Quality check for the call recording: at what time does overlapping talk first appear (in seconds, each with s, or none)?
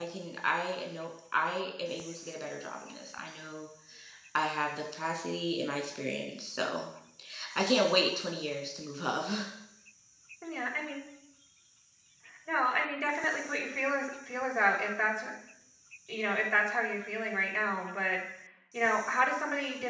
none